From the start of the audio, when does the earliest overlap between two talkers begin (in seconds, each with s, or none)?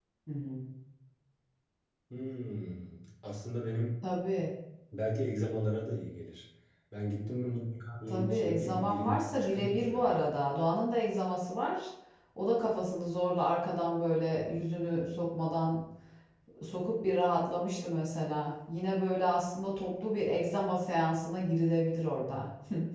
8.1 s